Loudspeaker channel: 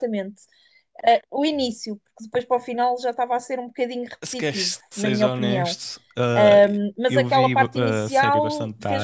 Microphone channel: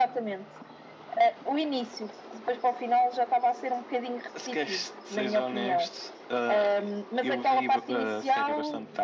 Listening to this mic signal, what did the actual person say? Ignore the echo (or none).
none